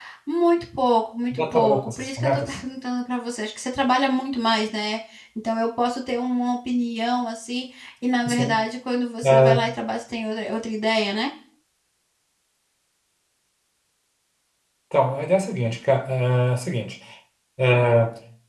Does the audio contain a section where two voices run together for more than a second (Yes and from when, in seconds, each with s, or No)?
Yes, from 1.4 s